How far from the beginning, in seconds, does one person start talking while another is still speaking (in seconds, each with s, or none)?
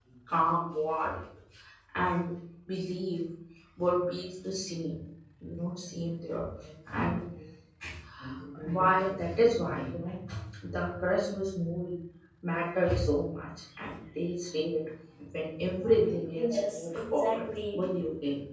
16.3 s